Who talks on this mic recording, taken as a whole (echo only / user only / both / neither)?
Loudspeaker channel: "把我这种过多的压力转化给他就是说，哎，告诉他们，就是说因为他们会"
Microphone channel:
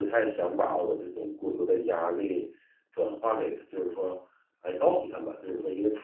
echo only